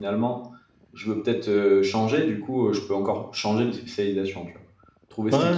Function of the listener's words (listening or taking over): taking over